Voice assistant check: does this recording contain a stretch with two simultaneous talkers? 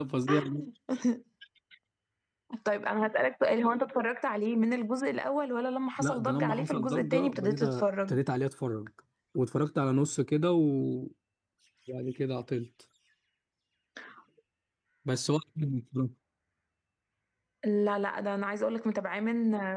Yes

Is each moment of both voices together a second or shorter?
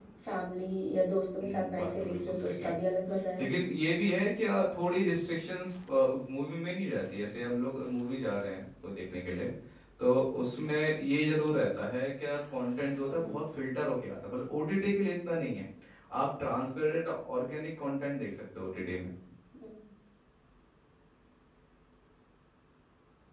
No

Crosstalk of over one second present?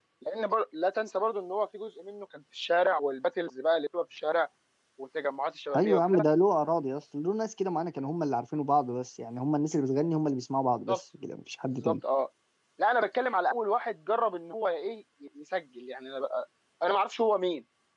No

